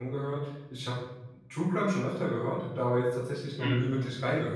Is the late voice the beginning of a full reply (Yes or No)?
No